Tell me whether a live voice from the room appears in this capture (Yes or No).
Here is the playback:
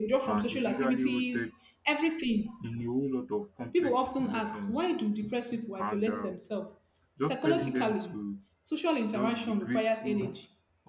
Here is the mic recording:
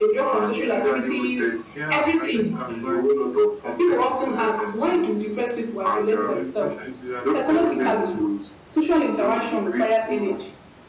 Yes